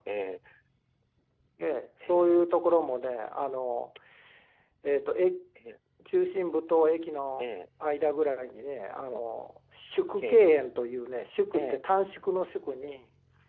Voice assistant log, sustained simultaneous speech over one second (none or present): none